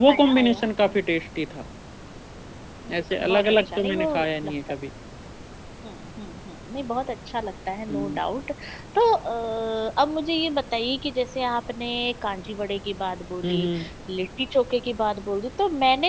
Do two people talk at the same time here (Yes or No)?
Yes